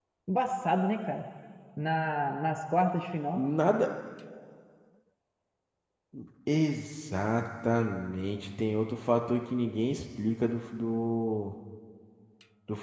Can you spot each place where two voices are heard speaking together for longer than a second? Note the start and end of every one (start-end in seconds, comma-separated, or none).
none